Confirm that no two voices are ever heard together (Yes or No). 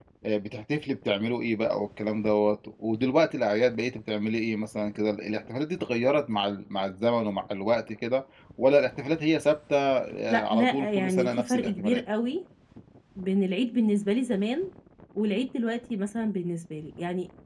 No